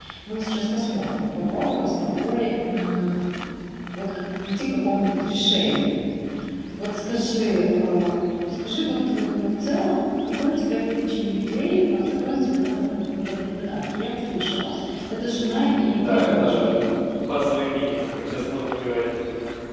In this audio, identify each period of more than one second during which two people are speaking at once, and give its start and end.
15.3-16.8

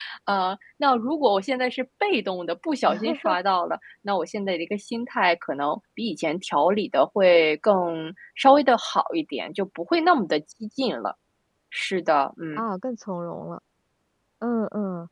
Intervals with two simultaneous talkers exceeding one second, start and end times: none

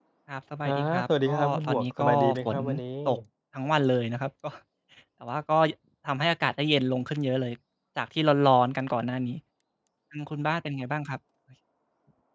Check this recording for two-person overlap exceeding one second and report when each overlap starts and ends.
0.7-2.6

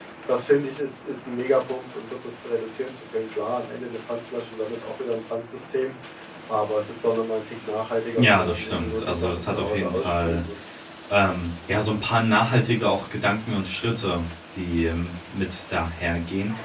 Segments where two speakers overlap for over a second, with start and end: 8.2-10.4

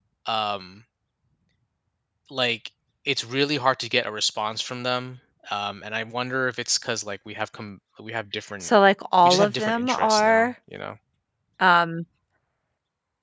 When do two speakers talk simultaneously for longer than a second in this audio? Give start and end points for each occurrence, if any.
9.2-10.4

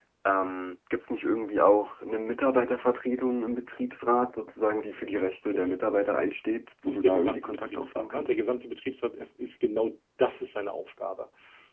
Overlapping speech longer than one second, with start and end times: 6.8-8.5

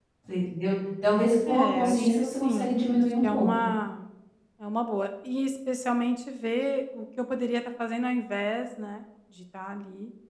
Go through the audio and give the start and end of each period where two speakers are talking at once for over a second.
1.5-3.7

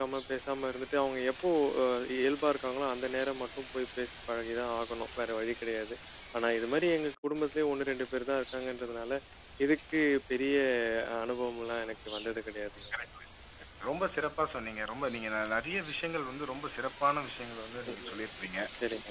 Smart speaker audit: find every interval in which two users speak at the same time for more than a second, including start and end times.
none

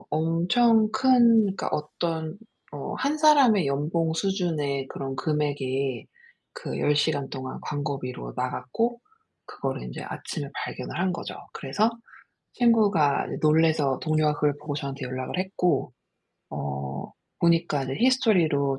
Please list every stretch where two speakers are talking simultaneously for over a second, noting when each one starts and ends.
none

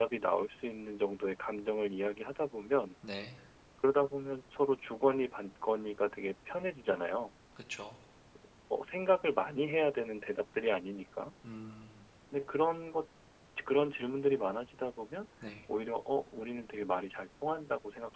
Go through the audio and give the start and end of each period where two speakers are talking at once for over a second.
none

